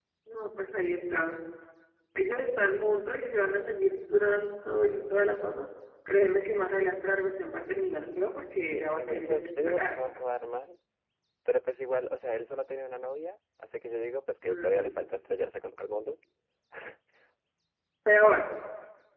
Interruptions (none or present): present